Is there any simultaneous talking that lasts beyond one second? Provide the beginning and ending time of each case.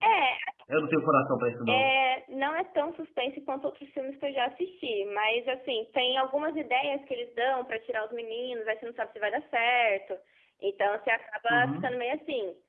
none

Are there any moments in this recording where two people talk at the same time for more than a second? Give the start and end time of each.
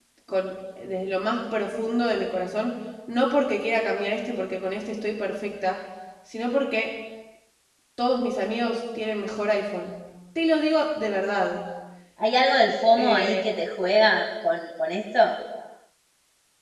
none

